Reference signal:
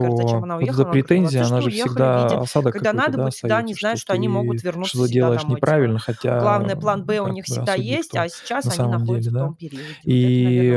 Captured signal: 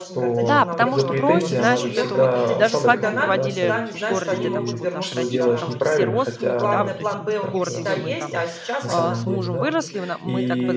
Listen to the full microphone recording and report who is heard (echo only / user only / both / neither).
both